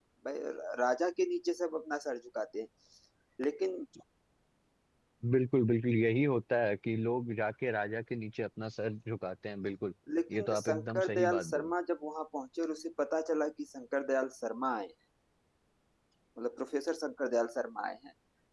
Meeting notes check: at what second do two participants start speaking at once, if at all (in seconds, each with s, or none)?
10.3 s